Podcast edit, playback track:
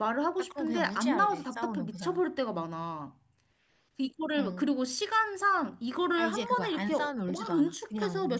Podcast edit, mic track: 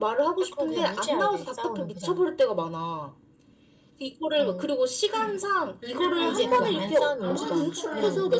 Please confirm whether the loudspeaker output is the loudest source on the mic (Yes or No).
Yes